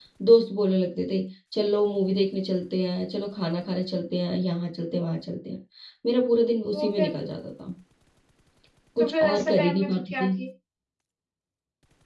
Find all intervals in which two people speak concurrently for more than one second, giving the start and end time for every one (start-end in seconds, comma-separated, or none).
9.0-10.3